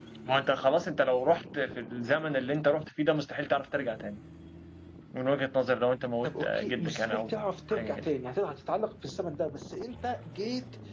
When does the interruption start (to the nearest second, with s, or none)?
6 s